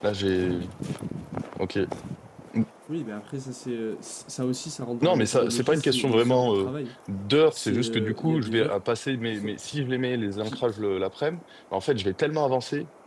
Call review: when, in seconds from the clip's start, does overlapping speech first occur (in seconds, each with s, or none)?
5.0 s